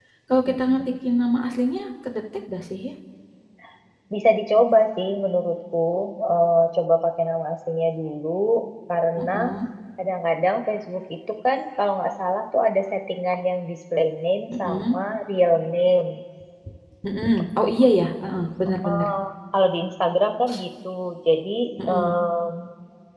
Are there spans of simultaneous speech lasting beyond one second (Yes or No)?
No